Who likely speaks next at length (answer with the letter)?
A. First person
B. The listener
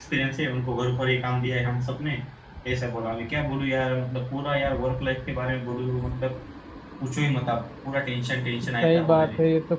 B